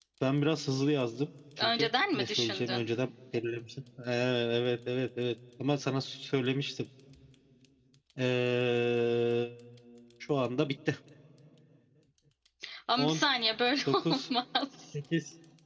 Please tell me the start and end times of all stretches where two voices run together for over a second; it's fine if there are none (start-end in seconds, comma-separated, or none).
1.6-2.9